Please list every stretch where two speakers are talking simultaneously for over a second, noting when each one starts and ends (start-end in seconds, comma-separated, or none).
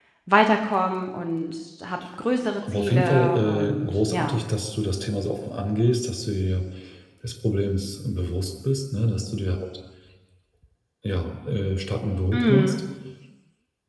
2.7-4.4